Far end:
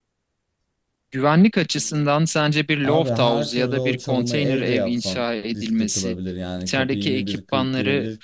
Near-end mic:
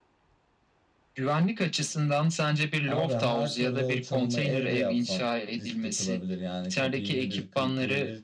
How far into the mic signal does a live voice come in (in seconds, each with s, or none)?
none